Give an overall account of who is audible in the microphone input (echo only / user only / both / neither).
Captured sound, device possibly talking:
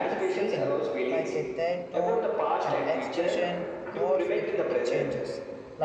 both